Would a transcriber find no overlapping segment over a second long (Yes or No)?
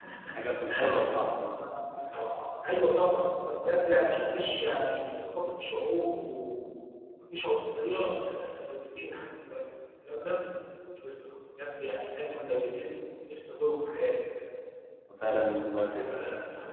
Yes